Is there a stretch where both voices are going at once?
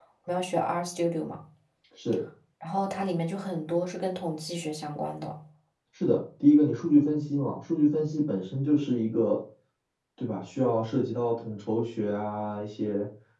No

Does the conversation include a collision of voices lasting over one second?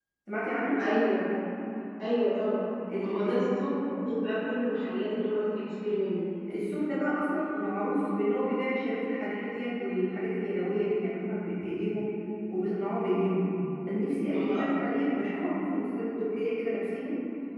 Yes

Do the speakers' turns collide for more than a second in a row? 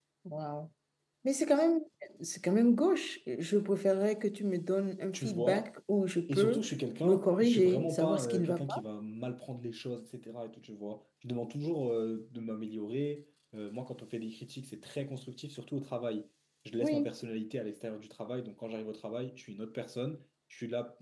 Yes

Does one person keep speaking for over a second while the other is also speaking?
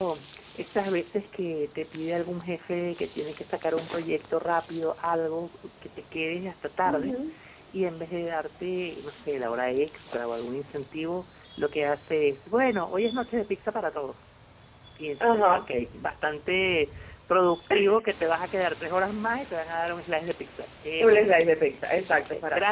No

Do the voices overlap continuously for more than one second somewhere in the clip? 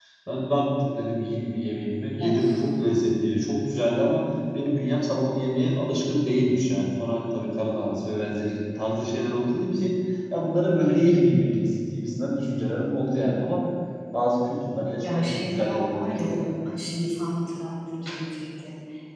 Yes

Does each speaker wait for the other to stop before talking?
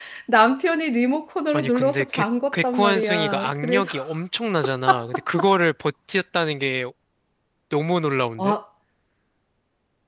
No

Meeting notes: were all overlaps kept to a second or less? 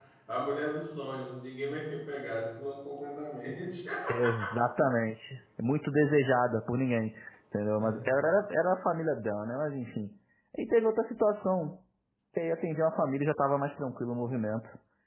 Yes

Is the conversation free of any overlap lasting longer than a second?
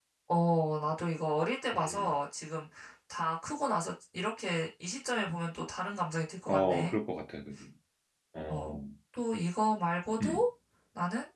Yes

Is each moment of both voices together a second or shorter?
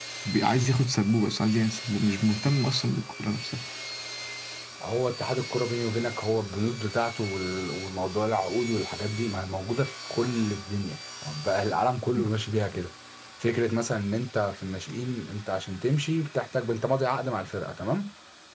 Yes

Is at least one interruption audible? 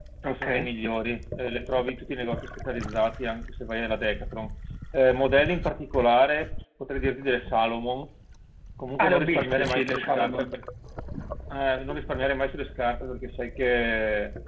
Yes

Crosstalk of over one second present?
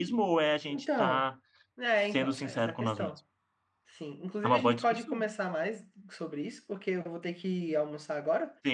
Yes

